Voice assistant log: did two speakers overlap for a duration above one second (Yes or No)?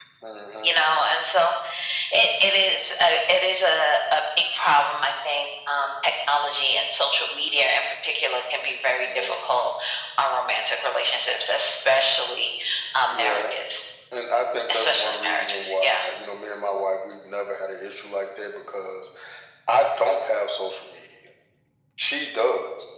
Yes